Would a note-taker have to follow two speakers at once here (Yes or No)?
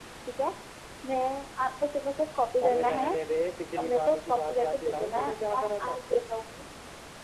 Yes